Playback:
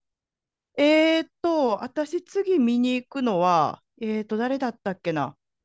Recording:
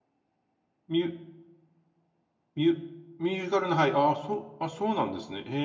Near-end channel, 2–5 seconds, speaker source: user only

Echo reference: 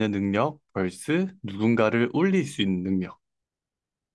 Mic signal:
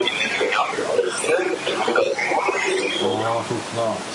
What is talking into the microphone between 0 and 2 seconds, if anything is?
echo only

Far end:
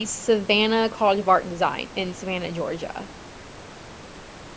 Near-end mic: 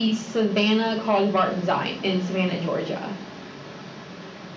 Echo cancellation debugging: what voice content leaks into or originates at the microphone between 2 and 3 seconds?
echo only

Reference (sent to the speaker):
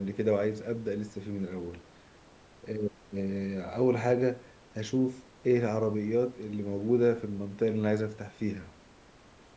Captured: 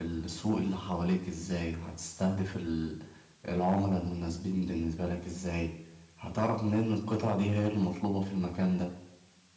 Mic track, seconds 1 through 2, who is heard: user only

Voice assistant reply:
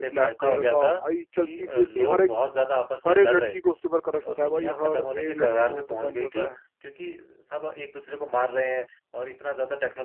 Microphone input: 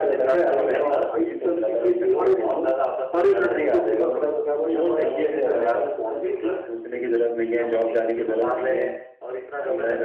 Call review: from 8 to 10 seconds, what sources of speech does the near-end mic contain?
both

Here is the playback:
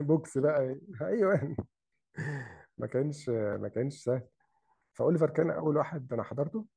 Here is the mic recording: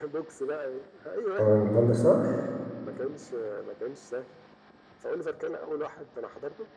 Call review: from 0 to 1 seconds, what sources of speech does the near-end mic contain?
echo only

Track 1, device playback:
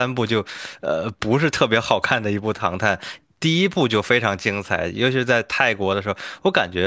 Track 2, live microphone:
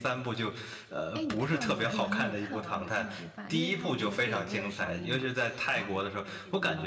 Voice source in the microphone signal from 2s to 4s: both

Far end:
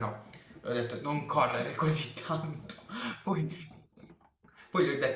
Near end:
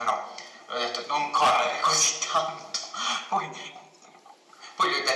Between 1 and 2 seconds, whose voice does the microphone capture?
echo only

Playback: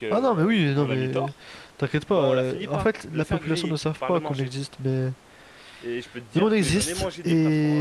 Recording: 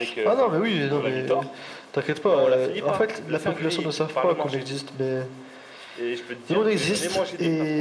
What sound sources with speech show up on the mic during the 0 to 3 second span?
echo only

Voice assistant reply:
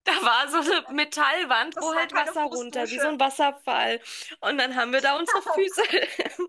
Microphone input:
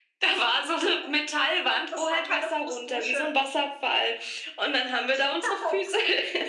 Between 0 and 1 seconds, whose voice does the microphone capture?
echo only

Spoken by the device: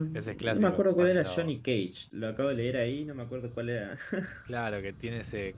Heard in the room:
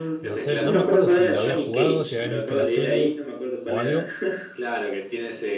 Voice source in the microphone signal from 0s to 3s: both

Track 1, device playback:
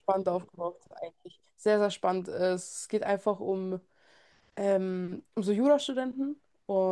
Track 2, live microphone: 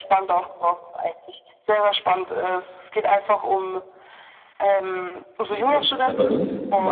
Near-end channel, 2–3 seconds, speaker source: echo only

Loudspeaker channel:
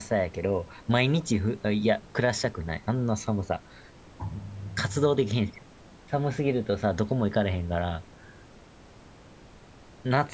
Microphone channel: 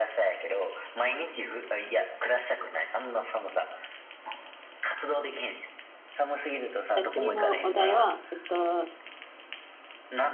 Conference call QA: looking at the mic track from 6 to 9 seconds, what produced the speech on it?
both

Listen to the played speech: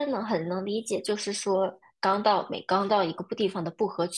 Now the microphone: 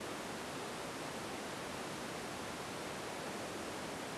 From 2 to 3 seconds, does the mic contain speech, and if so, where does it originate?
neither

